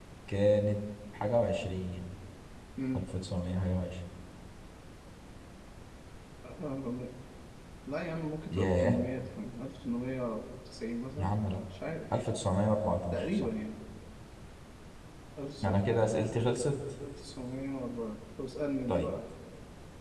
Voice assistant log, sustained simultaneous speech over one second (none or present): none